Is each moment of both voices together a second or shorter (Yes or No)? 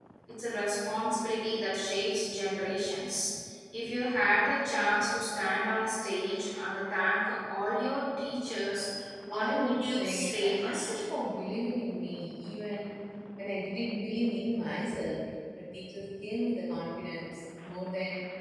No